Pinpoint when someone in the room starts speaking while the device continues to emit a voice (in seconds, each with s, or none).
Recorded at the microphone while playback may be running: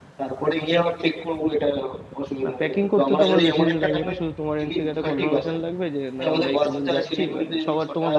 2.4 s